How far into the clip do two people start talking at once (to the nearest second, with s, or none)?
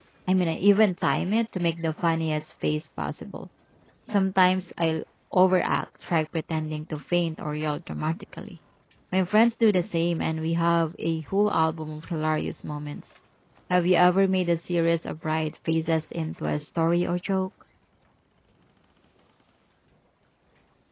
none